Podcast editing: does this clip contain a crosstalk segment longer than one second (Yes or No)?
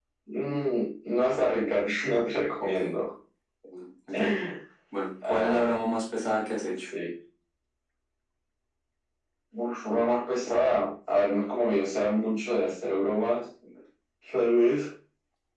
No